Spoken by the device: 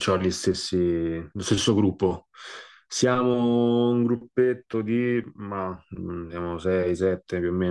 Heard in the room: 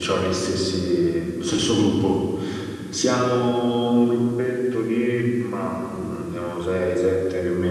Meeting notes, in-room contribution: none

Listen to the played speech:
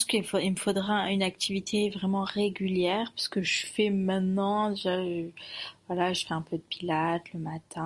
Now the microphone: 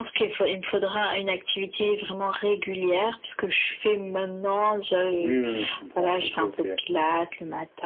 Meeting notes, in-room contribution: present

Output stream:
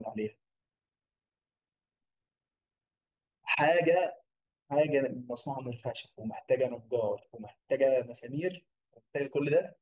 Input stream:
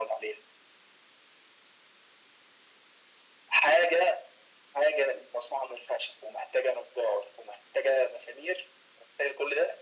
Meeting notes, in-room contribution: none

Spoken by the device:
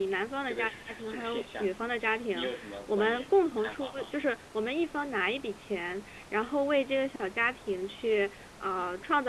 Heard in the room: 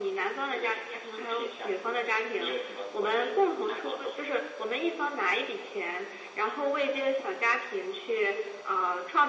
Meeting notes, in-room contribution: none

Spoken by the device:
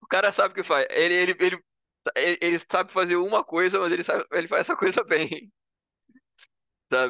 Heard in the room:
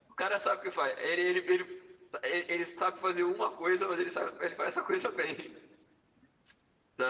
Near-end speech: none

